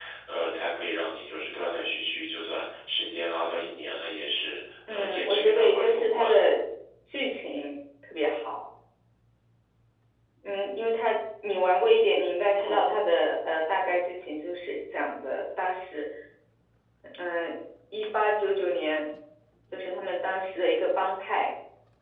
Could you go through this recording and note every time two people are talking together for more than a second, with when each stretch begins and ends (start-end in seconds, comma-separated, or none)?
4.9-6.4